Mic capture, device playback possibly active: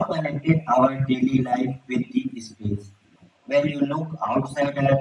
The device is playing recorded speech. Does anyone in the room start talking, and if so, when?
none

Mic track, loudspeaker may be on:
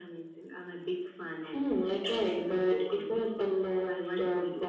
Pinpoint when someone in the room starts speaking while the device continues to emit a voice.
none

